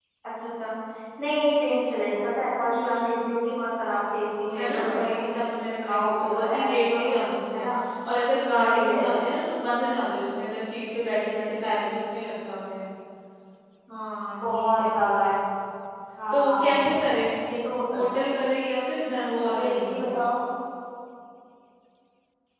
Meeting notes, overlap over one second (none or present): present